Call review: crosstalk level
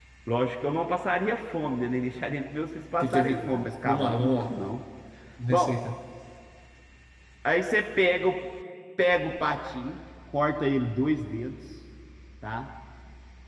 present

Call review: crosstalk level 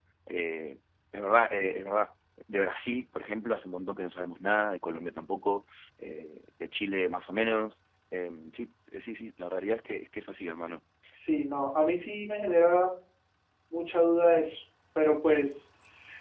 none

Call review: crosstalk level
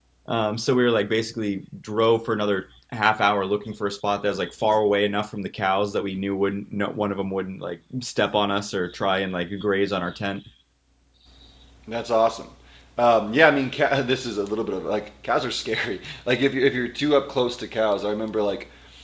none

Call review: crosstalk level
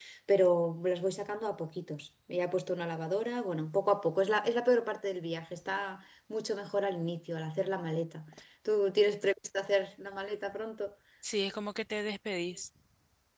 none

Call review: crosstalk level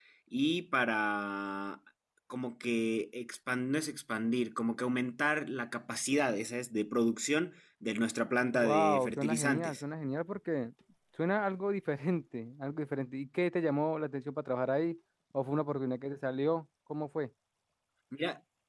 present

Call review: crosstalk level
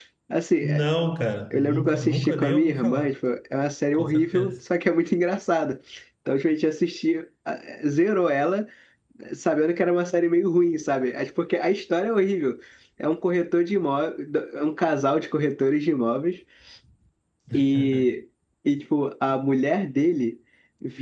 present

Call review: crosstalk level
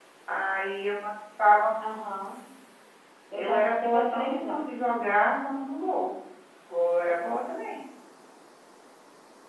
present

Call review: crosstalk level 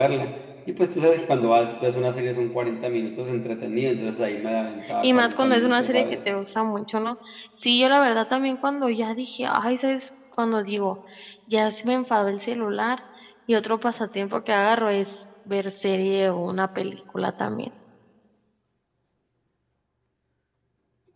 present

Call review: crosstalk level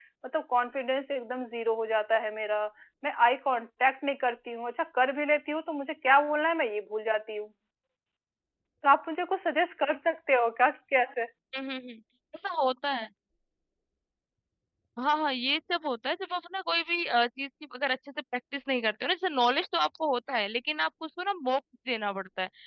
none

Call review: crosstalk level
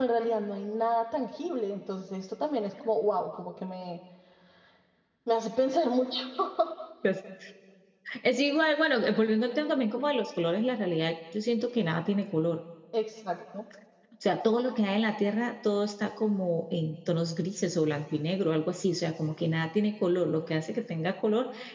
none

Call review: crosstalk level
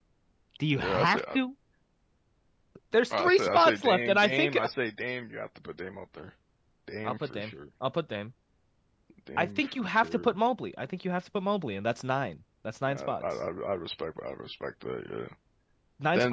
present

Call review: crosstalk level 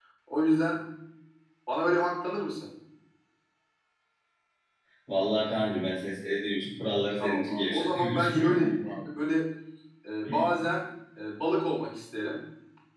present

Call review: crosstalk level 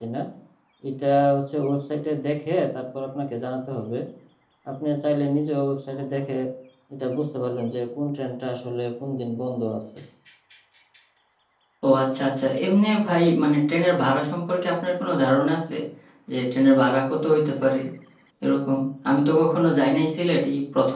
none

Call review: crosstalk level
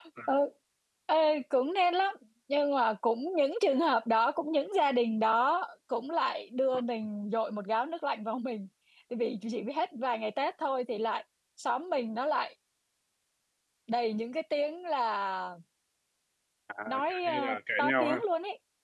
present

